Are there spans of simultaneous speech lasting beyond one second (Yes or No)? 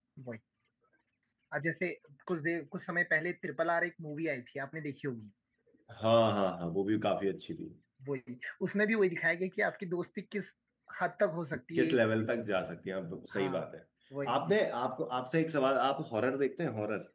No